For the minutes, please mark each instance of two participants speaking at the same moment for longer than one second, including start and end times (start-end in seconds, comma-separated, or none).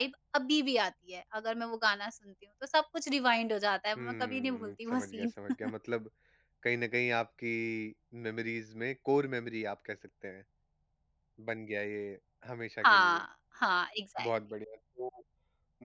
4.0-5.3